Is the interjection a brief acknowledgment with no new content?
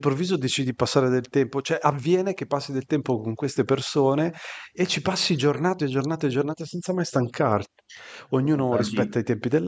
Yes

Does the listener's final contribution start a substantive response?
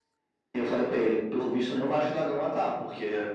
No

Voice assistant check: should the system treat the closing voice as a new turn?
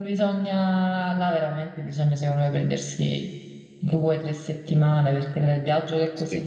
No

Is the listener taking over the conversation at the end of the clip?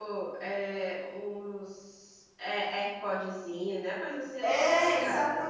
Yes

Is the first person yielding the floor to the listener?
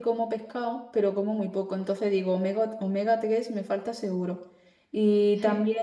No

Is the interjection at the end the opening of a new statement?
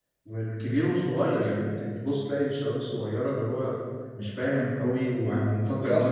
Yes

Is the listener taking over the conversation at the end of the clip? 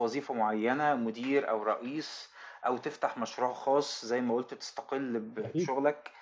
No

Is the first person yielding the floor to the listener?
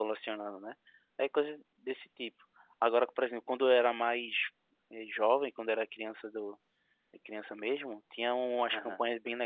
No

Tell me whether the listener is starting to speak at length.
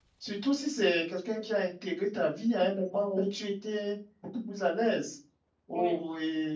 No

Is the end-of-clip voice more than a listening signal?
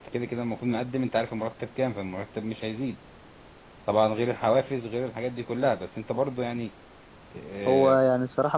Yes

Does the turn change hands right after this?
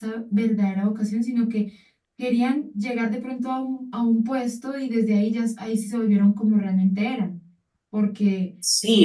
Yes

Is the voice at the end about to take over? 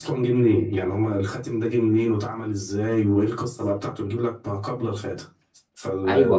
Yes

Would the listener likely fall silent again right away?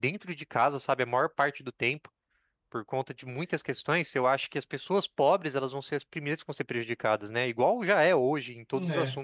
Yes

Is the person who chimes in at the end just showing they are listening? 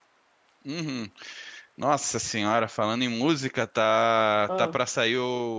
Yes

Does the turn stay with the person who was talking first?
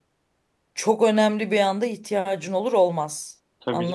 No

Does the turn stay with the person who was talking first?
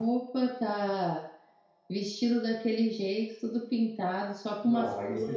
No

